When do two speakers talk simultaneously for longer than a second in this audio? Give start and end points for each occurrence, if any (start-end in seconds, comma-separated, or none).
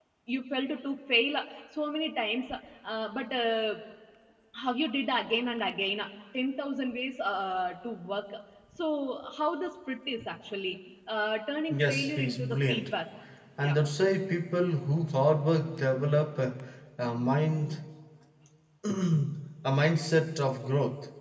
11.7-12.9